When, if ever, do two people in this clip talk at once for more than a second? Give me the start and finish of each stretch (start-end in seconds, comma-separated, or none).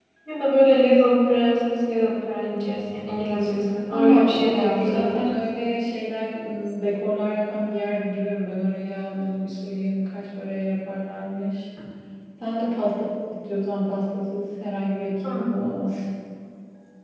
3.9-5.4